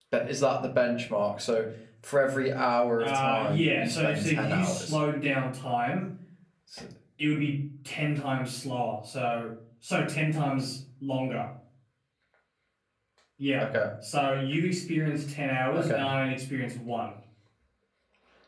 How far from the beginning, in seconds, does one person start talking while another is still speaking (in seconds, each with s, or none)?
3.0 s